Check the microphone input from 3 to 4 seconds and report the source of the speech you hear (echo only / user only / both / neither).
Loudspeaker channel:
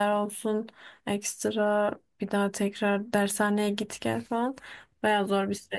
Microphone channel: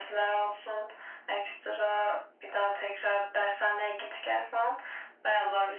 echo only